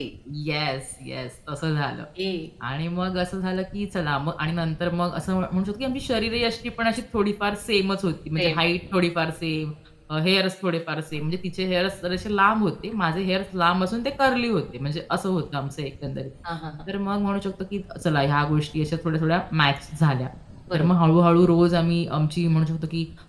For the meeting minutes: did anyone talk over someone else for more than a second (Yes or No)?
No